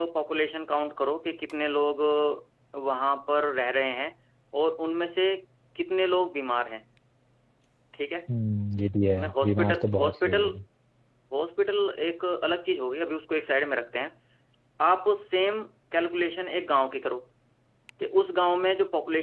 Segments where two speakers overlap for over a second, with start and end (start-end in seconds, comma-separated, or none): 9.2-10.5